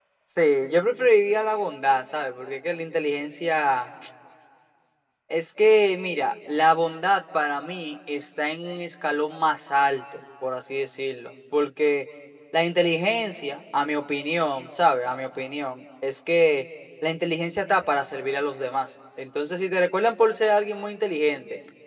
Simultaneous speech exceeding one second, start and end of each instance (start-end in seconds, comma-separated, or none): none